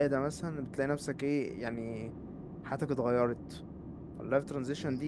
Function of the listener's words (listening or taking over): listening